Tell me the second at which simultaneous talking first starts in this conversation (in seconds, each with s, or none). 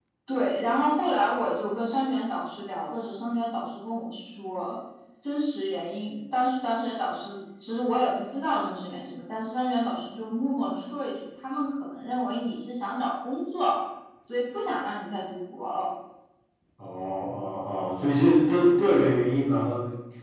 none